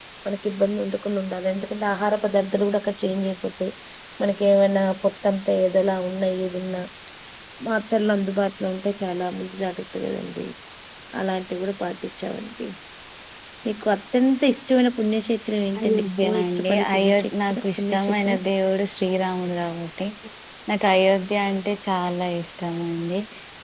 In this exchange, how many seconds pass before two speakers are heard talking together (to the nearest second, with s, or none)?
16 s